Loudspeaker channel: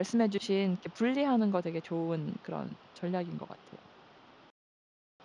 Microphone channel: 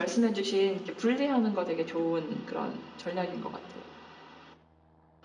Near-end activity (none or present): none